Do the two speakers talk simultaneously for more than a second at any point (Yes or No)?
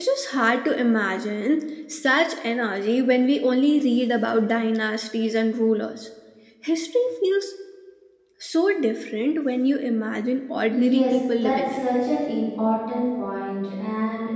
Yes